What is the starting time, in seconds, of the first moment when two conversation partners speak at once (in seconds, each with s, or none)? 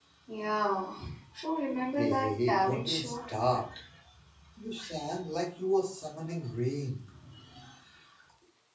2.0 s